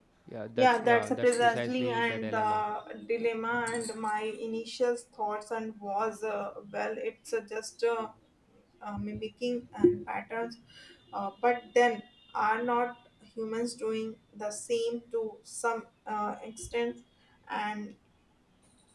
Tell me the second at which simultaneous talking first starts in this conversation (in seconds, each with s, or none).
0.6 s